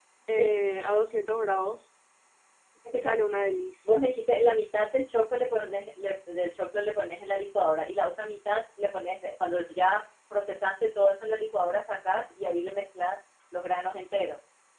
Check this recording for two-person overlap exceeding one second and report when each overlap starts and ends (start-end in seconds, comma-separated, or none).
none